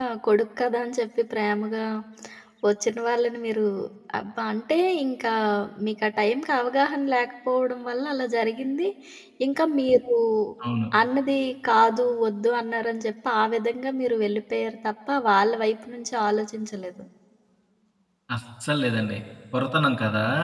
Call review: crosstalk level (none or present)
none